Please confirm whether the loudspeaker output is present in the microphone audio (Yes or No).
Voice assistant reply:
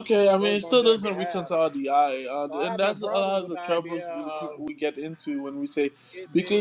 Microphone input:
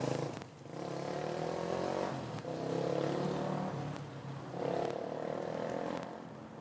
No